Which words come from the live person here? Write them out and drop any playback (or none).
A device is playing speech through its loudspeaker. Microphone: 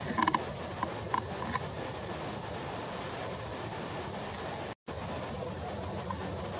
none